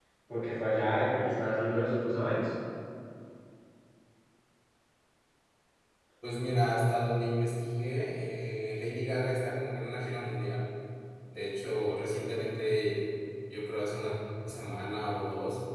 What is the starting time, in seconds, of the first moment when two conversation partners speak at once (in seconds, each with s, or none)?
none